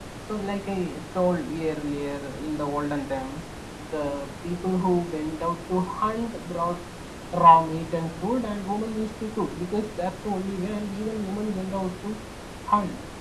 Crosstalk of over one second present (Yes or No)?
No